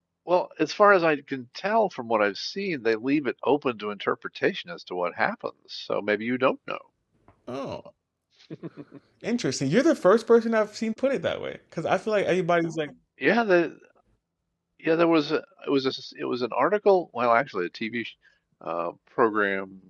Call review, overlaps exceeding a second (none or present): none